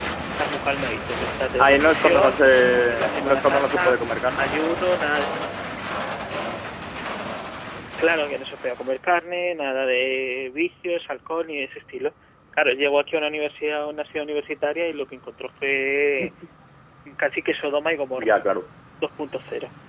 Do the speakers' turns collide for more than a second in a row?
Yes, from 1.6 s

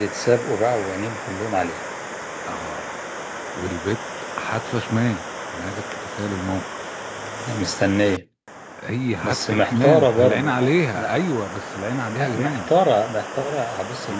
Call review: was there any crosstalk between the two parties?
Yes, from 9.2 s

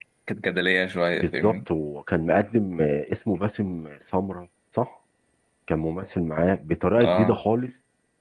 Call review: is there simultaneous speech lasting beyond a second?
No

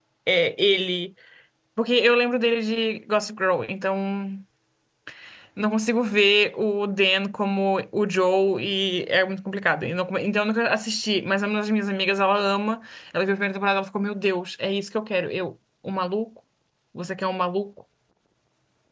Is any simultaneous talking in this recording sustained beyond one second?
No

